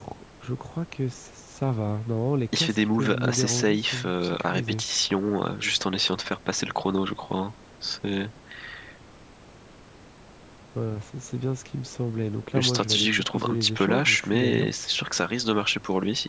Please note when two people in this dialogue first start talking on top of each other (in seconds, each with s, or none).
2.6 s